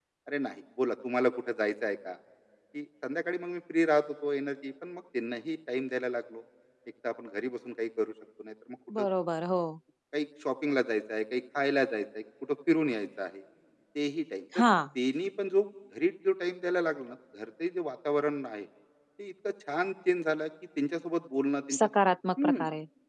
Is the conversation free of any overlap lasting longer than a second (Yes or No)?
Yes